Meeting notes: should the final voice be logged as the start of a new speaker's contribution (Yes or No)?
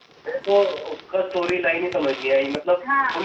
Yes